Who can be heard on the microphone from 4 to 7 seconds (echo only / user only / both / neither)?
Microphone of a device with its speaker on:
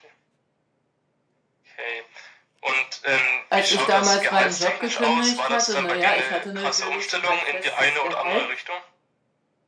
both